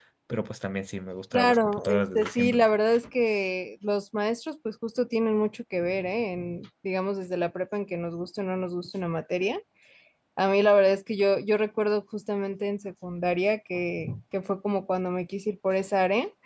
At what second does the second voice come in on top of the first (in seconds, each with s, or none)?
1.3 s